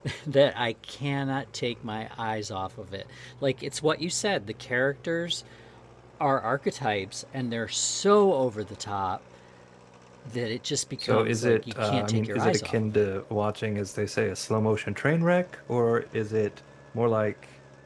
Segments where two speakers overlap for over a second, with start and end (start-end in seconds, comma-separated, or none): 11.0-13.1